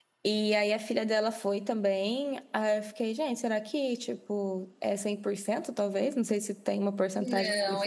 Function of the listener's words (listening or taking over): taking over